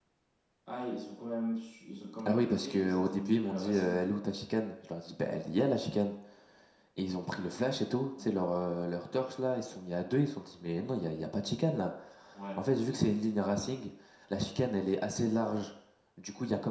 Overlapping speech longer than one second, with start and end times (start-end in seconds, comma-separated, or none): 2.3-4.0